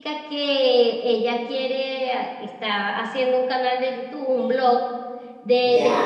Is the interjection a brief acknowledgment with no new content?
Yes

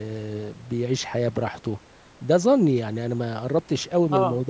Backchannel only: Yes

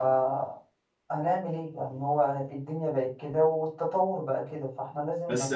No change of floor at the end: No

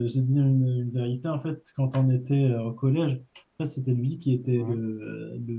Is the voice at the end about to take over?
No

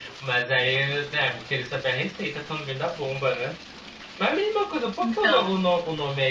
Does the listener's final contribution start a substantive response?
No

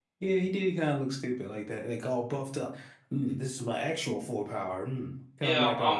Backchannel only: No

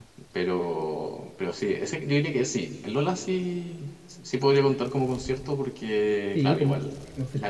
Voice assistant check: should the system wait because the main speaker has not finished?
No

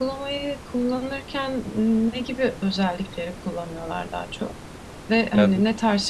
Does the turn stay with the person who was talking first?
Yes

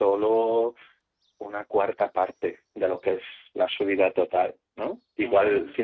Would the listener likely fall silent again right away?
Yes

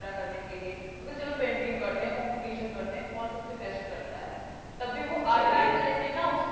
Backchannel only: Yes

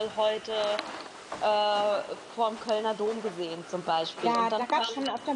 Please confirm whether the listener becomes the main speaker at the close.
Yes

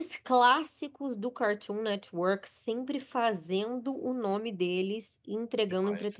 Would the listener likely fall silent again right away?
No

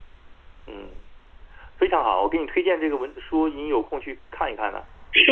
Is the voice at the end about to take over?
Yes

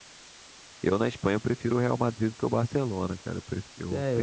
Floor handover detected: Yes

